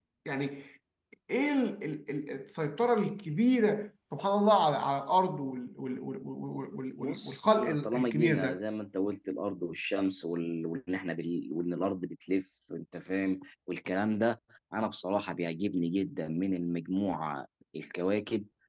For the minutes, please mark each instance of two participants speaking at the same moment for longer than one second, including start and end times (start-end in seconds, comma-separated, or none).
7.0-8.6